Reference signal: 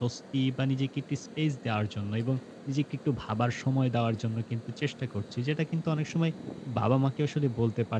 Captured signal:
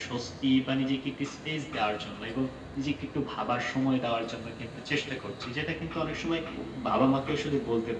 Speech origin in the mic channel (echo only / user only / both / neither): echo only